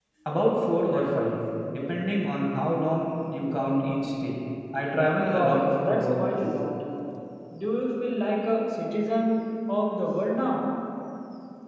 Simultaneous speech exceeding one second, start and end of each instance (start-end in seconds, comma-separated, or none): 5.2-6.5